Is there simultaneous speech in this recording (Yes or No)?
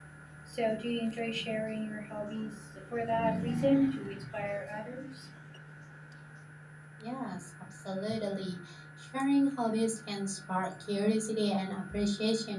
No